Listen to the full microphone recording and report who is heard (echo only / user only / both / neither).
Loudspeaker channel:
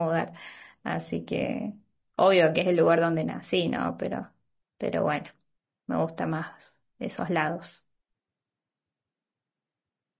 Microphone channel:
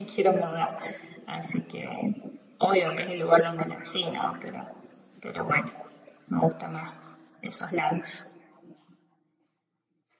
echo only